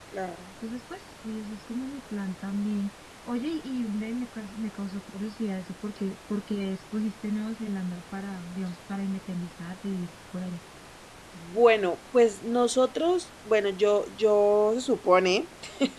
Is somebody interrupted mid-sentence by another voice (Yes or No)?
No